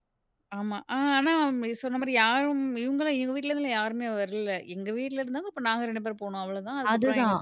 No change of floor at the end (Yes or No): No